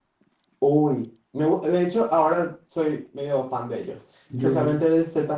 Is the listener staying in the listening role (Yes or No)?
Yes